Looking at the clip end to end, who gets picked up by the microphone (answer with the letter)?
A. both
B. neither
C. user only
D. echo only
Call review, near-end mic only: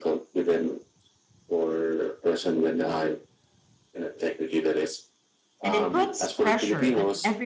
A